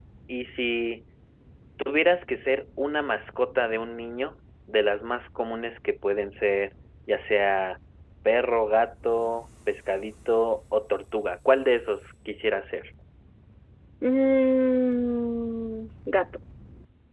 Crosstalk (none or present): none